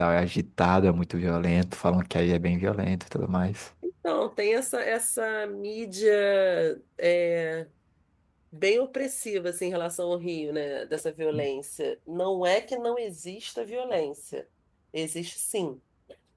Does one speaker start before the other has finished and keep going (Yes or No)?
No